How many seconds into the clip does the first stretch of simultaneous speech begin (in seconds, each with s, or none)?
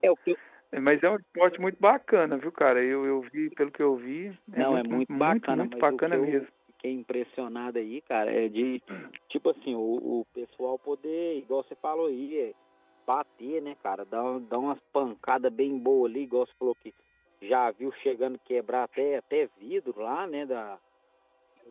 4.6 s